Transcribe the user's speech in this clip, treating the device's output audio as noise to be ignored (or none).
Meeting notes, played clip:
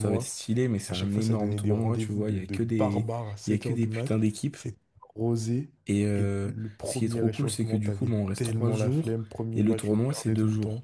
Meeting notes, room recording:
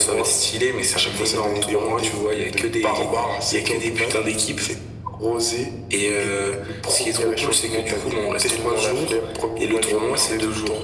none